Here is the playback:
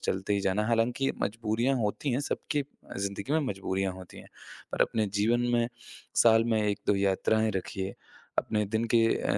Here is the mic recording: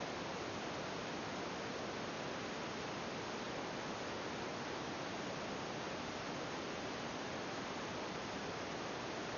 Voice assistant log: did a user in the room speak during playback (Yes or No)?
No